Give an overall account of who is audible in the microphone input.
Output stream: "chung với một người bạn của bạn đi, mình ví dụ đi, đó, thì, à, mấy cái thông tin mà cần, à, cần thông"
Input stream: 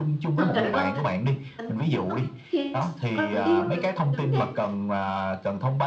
both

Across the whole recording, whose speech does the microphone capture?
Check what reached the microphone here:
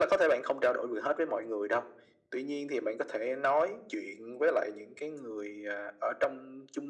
echo only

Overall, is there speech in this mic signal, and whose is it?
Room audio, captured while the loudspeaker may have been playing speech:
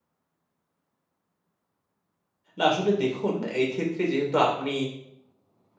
user only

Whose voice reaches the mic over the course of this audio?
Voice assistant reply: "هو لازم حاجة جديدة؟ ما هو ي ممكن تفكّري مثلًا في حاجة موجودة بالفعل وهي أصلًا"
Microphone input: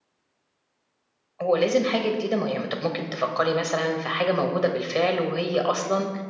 echo only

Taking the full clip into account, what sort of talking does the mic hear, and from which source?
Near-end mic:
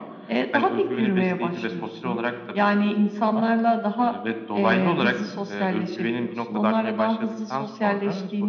echo only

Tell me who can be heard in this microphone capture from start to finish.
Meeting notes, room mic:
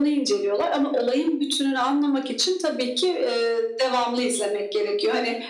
echo only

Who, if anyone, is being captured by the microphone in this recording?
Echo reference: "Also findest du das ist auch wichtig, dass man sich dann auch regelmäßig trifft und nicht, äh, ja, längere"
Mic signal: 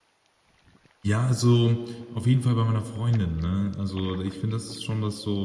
user only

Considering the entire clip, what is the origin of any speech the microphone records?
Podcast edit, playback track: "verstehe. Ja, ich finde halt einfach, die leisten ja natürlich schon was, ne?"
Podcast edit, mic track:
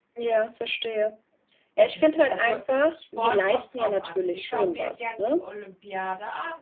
both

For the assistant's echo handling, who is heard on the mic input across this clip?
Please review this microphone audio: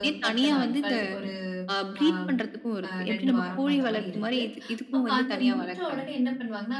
both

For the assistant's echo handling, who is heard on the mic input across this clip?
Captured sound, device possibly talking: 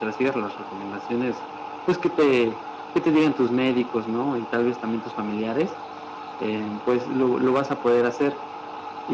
echo only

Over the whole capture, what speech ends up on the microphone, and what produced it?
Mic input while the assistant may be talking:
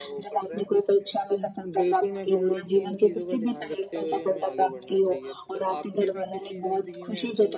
both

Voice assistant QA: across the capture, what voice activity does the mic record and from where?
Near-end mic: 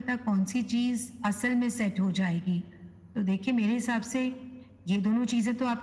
echo only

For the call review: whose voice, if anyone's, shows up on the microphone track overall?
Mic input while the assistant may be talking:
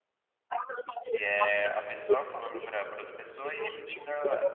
both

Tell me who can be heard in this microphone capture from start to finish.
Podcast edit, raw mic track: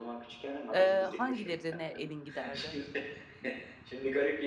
both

